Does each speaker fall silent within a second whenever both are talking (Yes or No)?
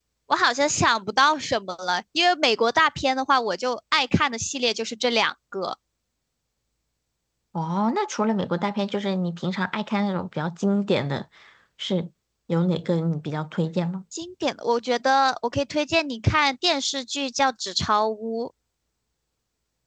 Yes